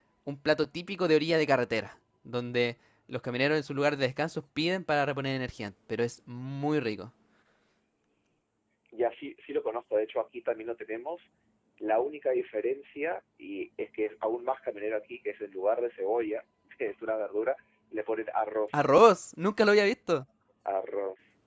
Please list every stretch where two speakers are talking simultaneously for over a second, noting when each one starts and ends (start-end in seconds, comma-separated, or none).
none